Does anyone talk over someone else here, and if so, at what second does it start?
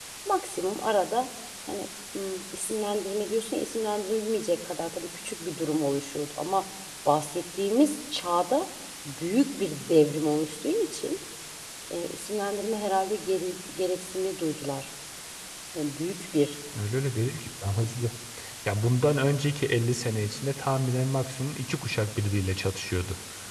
none

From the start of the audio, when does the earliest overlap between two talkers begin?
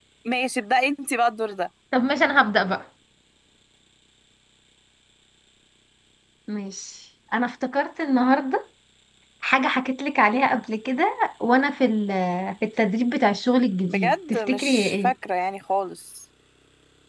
13.9 s

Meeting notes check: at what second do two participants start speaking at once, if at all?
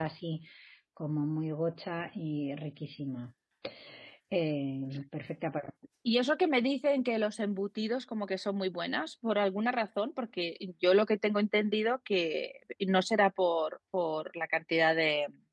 none

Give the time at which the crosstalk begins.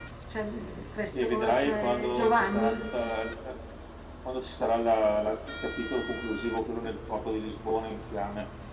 1.2 s

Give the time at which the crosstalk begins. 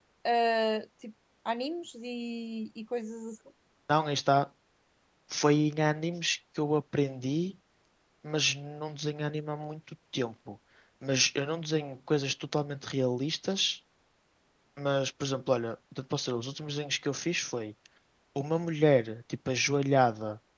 none

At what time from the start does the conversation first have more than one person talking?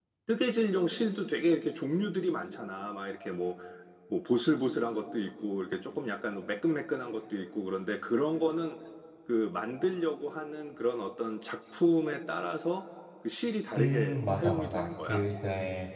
13.8 s

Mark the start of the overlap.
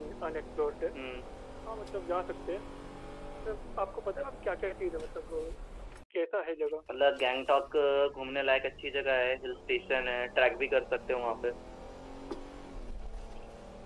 none

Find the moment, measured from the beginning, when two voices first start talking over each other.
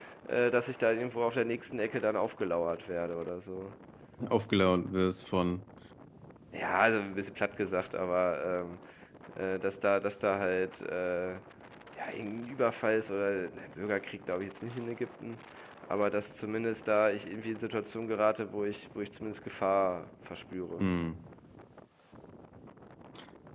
none

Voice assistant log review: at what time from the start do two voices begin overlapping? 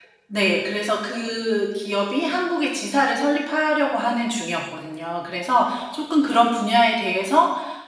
none

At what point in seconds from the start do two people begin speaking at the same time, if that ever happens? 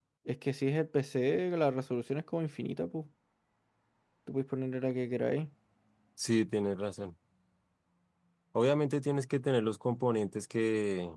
none

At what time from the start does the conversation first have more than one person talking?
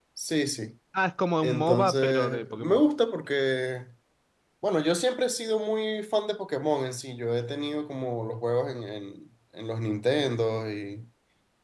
1.4 s

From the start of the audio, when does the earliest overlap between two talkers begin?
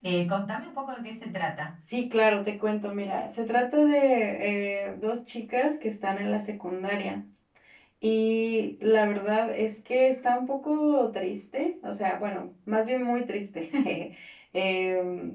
none

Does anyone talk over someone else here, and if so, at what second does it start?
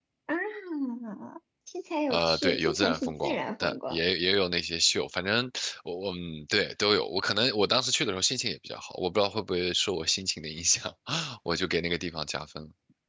2.1 s

